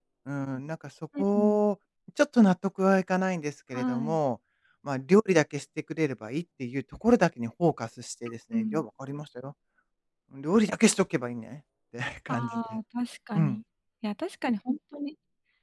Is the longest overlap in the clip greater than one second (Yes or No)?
No